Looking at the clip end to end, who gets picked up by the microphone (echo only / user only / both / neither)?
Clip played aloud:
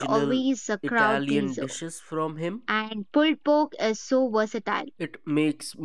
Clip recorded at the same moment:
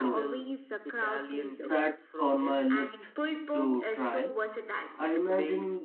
both